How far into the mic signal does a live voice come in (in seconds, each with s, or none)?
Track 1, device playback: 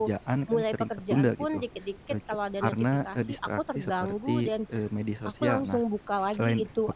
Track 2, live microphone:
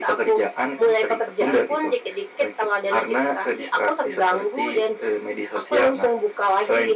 none